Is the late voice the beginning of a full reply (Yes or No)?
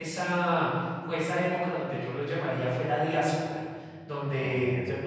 No